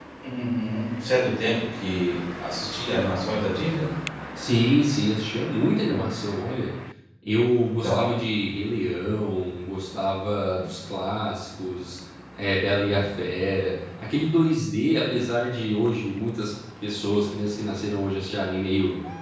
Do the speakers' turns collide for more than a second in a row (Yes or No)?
No